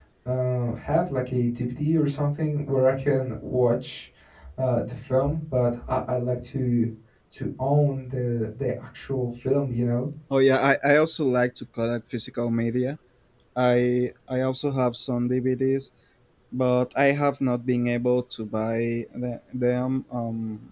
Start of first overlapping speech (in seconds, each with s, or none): none